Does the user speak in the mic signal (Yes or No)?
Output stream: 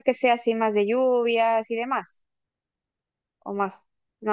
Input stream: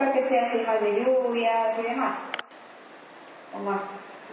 No